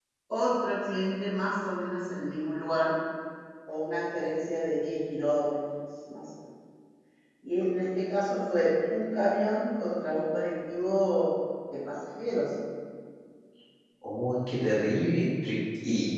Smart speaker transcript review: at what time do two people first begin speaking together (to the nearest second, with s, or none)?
none